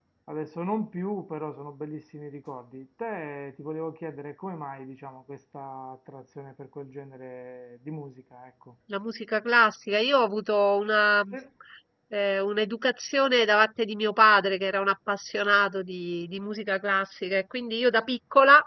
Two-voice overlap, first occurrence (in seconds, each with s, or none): none